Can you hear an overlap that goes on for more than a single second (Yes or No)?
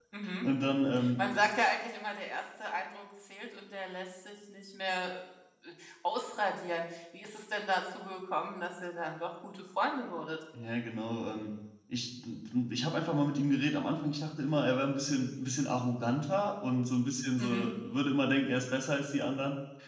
No